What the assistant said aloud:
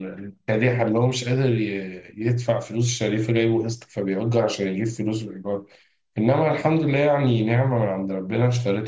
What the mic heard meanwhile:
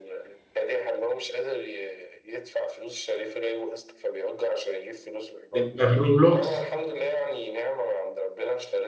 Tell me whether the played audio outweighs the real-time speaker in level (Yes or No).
No